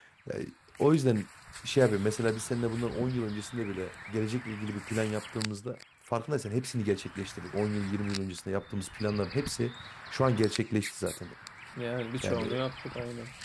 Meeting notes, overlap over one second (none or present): none